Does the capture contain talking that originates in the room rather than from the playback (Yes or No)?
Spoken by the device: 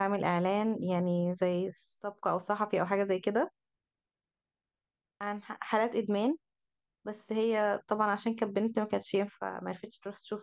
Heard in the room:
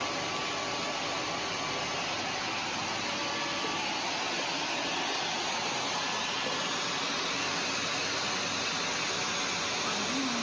No